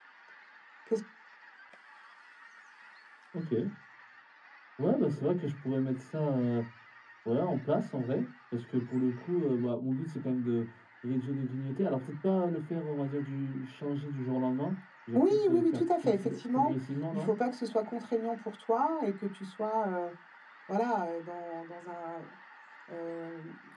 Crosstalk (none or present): present